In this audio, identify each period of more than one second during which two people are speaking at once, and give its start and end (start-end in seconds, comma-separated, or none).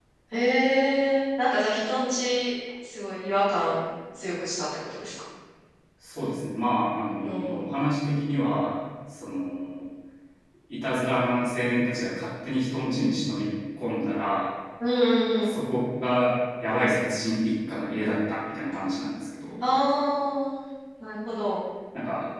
none